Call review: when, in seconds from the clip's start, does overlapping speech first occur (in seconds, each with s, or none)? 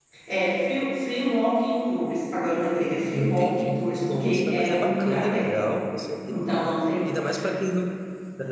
3.1 s